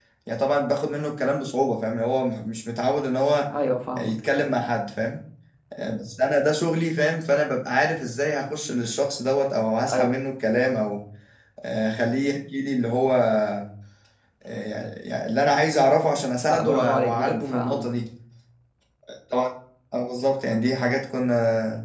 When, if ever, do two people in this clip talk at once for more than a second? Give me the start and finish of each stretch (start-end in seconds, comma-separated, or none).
16.5-17.9